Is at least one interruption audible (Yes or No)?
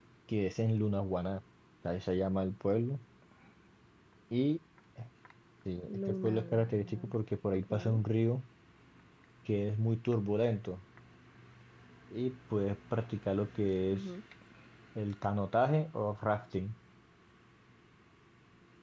Yes